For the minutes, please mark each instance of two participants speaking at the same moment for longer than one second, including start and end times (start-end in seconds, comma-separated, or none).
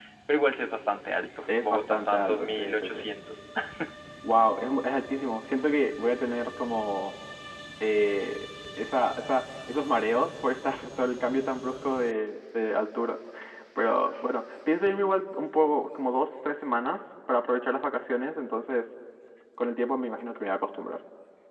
1.6-3.0